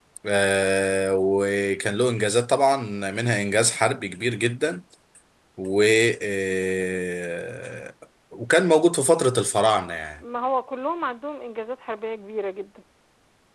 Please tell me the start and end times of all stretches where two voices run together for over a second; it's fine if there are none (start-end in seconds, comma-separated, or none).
none